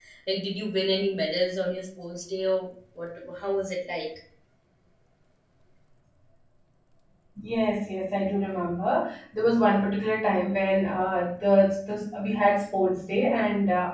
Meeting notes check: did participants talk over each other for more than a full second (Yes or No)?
No